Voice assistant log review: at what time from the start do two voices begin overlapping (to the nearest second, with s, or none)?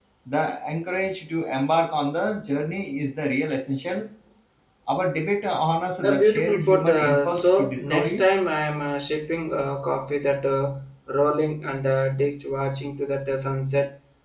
6 s